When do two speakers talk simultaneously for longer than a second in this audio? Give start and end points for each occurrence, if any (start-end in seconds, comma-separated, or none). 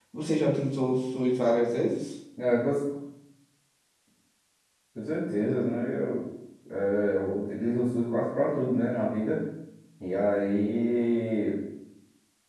none